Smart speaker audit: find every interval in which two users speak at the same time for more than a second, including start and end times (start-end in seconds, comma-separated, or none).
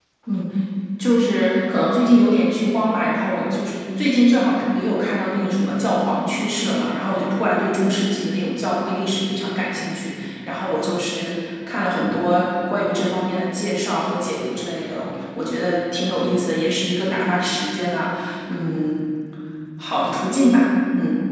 none